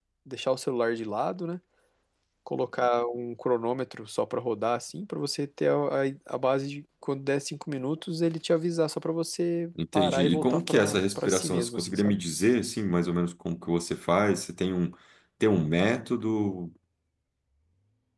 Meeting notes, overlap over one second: present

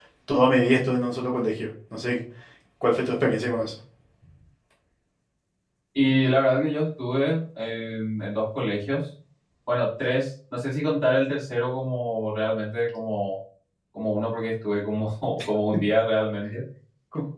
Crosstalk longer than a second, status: none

